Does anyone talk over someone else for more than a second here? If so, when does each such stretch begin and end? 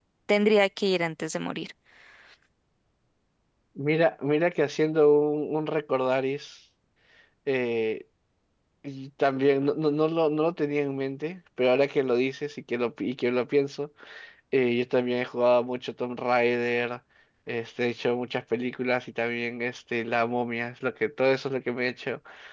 none

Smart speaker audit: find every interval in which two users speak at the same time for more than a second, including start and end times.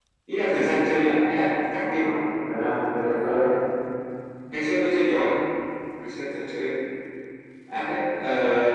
none

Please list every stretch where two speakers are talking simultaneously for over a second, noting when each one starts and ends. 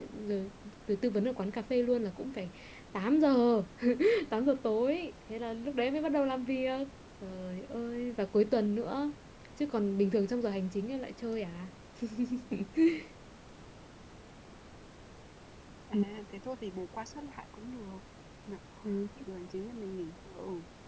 none

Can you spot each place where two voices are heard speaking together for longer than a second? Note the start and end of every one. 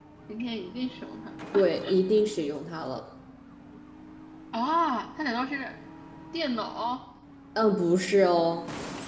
none

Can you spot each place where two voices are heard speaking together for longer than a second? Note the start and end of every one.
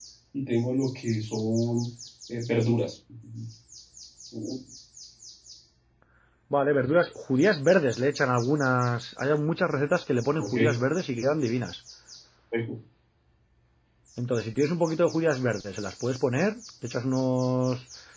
none

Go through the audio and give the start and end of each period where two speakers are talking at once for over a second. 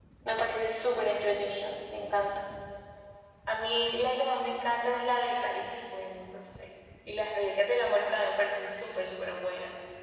none

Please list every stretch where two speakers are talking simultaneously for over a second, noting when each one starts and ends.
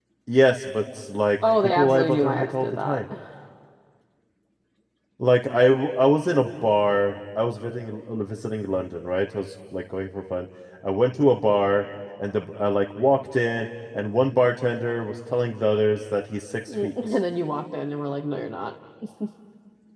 1.6-3.0

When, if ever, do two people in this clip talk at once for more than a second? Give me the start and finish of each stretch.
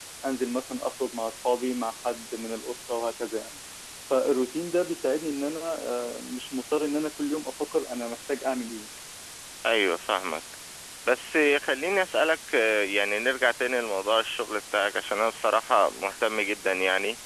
none

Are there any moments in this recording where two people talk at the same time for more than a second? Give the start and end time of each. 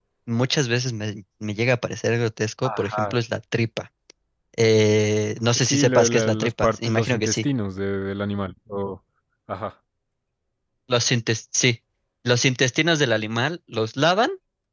5.5-7.5

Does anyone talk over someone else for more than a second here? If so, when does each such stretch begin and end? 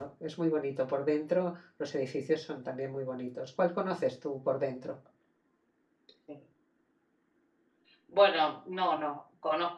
none

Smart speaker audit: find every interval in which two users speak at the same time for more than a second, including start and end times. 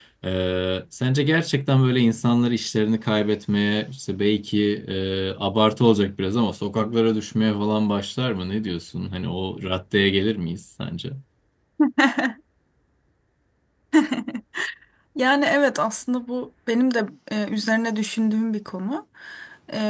none

